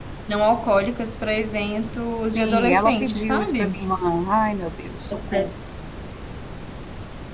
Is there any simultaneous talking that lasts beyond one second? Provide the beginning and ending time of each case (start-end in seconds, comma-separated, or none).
2.4-3.8